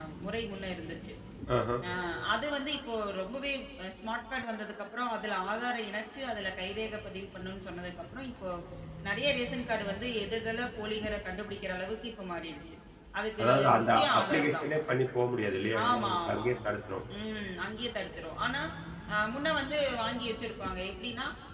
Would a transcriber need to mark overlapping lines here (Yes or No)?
Yes